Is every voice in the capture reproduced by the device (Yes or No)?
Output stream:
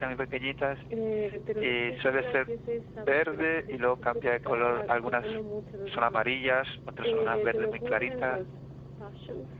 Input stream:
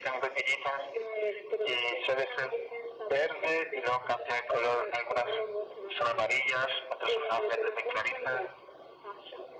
Yes